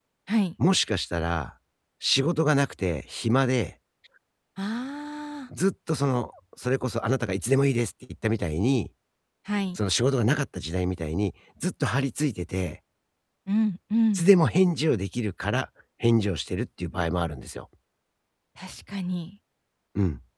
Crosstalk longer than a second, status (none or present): none